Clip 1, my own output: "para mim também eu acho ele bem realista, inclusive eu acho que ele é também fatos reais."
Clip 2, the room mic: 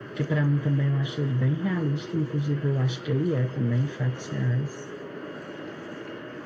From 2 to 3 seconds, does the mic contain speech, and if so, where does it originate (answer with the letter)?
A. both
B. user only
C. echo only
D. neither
C